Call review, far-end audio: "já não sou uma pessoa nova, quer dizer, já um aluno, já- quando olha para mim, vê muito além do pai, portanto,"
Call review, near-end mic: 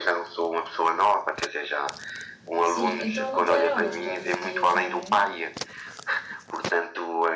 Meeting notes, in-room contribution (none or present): present